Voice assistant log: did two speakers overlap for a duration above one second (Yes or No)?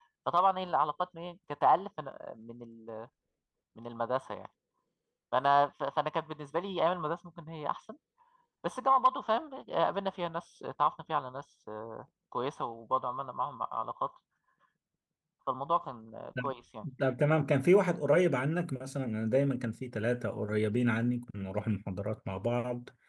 No